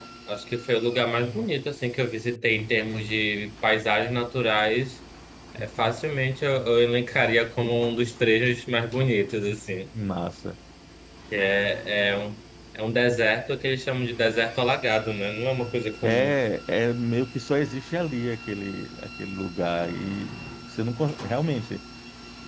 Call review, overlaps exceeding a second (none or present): none